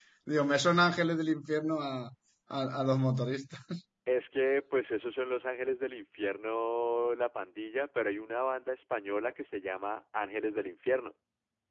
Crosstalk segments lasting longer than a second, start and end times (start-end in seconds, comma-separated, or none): none